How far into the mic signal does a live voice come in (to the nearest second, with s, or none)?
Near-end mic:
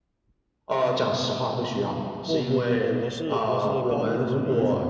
2 s